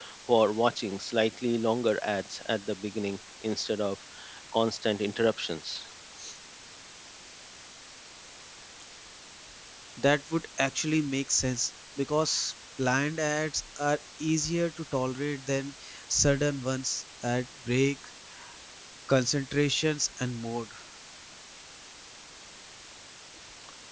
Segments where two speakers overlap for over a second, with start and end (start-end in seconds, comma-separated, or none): none